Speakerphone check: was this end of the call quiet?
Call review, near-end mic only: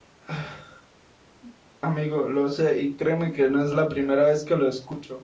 No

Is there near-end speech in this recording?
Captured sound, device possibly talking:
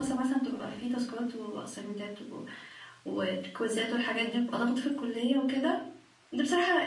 Yes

